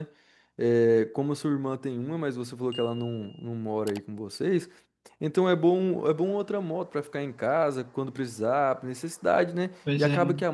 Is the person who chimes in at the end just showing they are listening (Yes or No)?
Yes